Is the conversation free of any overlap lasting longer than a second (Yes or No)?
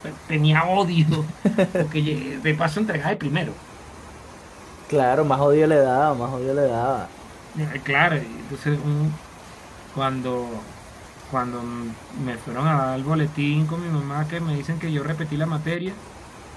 Yes